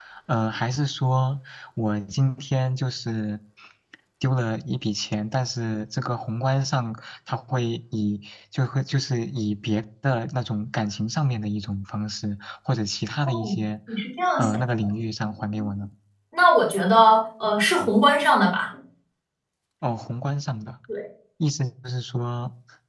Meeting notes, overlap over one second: none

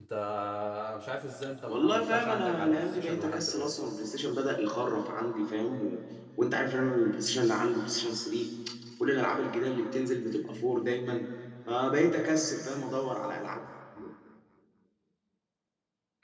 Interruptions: present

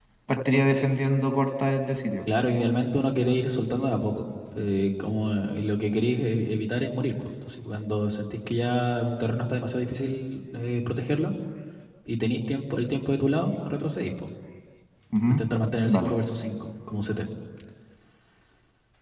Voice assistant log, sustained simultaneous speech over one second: none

